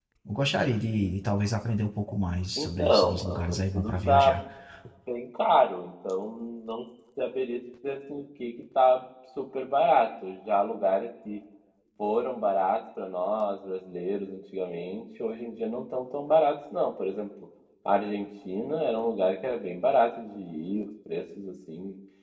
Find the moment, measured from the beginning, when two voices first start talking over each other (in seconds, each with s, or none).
2.6 s